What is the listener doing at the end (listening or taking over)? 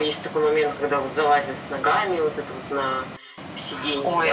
taking over